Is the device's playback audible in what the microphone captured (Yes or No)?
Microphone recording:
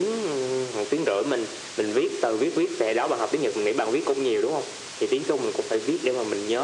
Yes